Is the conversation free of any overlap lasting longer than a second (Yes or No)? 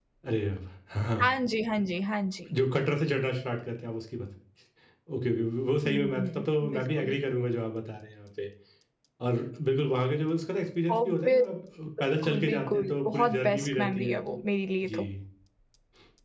No